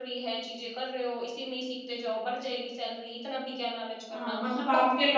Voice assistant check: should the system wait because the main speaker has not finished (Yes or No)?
No